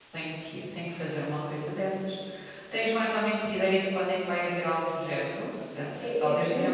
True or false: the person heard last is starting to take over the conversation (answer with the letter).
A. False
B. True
B